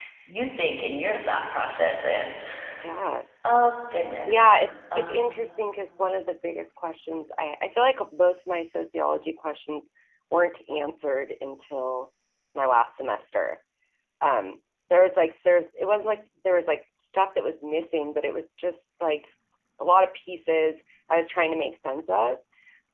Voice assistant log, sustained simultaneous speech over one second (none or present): none